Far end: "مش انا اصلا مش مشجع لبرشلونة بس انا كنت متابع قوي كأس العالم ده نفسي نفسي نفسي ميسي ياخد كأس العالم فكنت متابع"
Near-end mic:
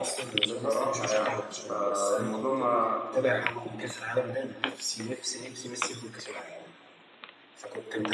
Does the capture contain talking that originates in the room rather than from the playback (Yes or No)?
Yes